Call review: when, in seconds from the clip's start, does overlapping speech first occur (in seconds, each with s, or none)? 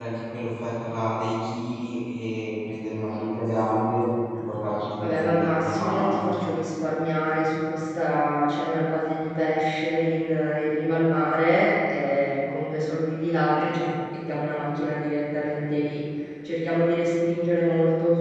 5.0 s